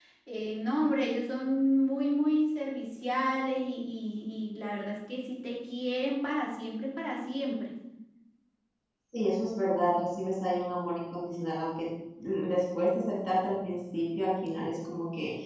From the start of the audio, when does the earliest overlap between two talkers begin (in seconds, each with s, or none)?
none